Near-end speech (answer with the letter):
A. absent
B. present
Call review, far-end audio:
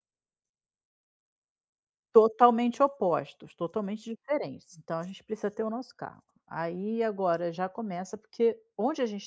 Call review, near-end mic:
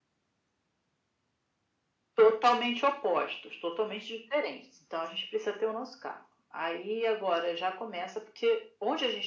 A